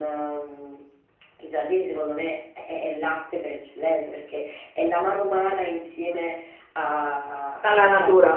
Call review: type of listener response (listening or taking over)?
listening